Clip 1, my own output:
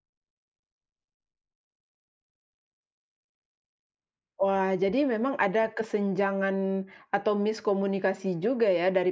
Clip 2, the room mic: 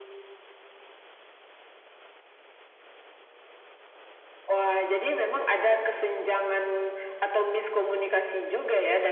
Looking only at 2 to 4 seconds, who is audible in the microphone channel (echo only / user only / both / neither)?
neither